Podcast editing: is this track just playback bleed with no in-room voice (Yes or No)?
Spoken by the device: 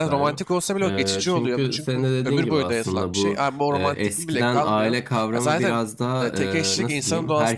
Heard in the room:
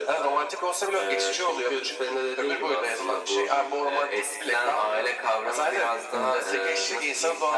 No